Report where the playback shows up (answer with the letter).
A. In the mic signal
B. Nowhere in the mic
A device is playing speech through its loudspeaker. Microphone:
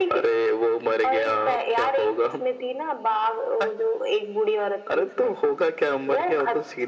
A